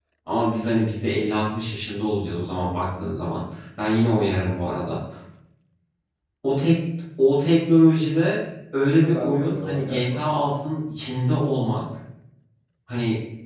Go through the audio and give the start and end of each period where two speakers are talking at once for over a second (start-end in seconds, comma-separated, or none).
9.0-10.6